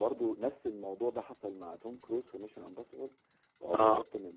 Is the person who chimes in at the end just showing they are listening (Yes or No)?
Yes